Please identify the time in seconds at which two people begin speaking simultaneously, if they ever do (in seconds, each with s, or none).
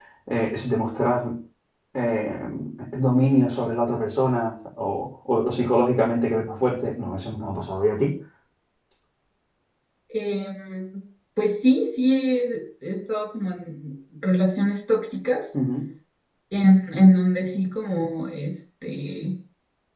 none